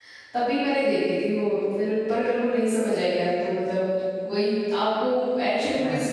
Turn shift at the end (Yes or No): No